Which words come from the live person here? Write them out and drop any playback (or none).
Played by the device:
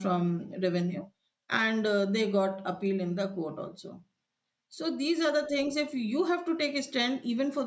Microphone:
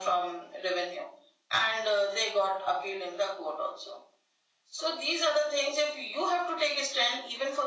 none